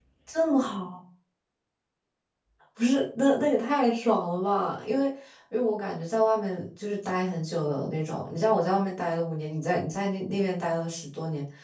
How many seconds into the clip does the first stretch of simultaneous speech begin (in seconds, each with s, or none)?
none